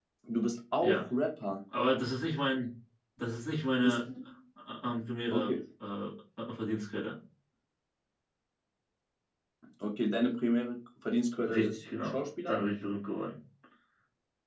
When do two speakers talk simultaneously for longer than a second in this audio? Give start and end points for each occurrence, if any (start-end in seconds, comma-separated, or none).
11.4-12.7